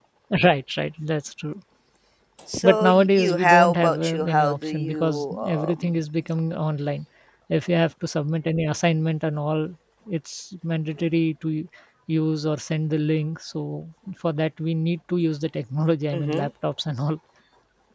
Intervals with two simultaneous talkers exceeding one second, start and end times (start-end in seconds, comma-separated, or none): 2.6-5.9